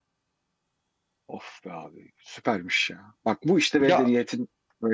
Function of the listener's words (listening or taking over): listening